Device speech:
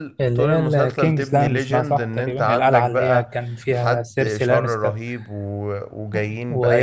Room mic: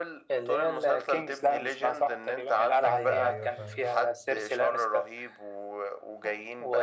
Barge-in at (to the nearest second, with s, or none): 3 s